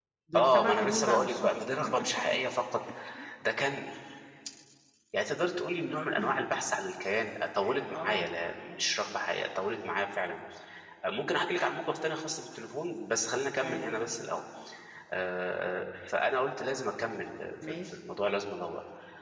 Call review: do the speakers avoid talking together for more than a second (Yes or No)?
No